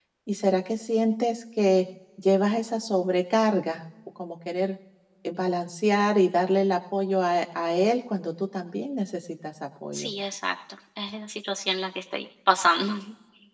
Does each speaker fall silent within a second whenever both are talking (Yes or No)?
Yes